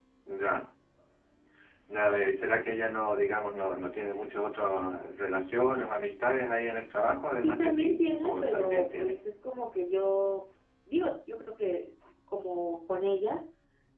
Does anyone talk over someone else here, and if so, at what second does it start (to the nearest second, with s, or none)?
7 s